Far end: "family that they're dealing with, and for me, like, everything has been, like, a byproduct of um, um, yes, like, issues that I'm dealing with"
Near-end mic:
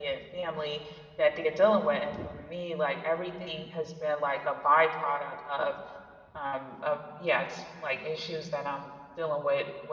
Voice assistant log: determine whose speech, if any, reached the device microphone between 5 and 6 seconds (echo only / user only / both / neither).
echo only